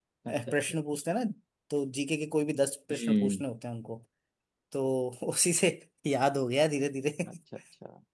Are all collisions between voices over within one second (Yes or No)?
Yes